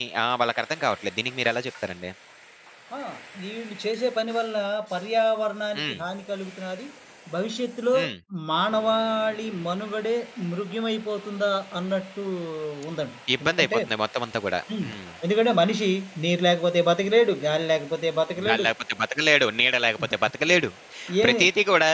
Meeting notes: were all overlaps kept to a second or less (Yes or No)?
Yes